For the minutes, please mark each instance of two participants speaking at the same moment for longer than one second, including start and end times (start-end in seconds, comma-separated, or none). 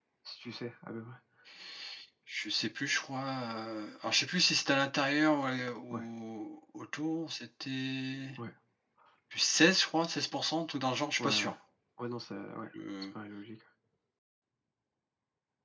none